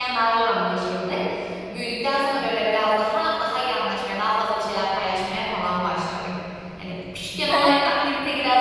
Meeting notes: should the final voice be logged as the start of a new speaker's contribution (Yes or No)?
No